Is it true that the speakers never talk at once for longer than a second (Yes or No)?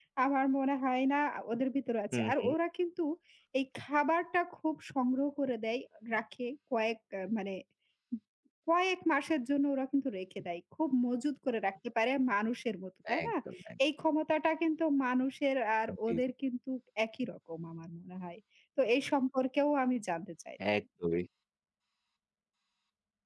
Yes